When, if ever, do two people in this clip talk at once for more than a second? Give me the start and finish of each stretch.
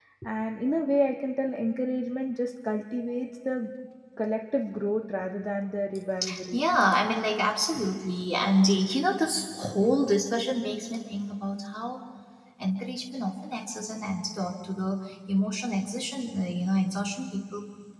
none

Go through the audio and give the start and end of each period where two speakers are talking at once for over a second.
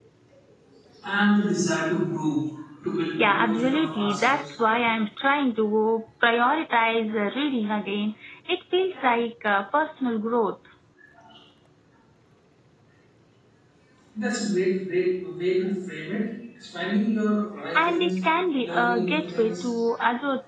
3.2-4.5, 18.6-19.8

